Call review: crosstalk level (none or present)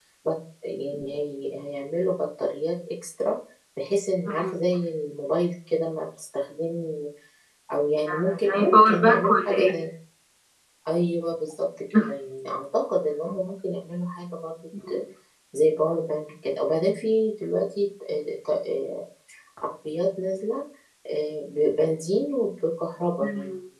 present